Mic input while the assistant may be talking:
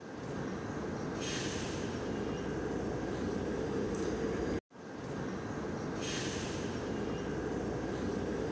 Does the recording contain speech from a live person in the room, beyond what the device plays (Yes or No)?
No